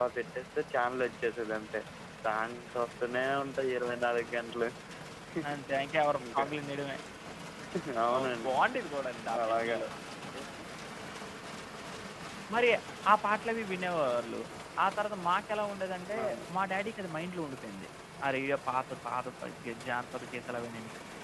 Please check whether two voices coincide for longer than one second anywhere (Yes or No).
No